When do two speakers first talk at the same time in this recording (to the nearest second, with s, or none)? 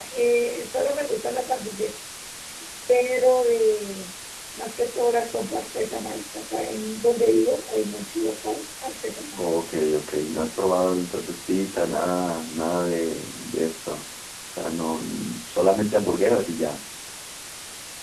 none